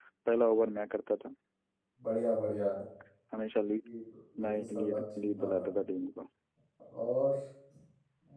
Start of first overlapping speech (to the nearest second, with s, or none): 4 s